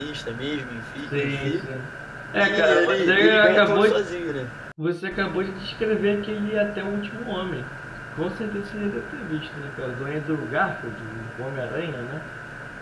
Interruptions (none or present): present